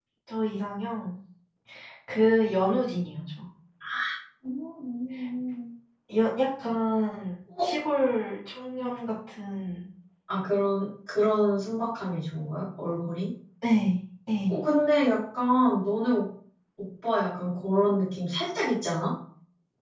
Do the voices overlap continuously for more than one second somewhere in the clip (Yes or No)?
No